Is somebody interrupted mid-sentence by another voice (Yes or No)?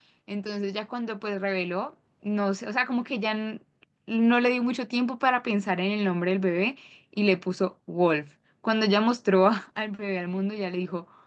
No